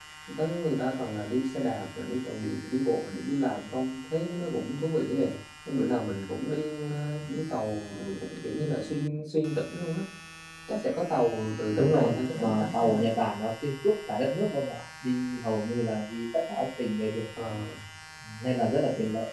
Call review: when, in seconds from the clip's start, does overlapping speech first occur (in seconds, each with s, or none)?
11.8 s